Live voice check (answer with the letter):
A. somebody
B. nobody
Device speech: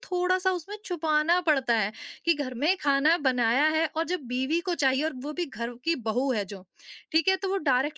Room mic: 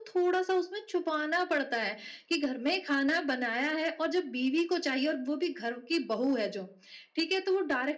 B